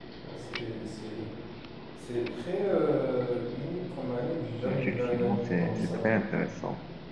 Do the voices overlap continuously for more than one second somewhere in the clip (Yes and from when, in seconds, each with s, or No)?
Yes, from 4.6 s